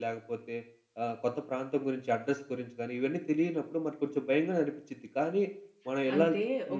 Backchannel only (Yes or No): No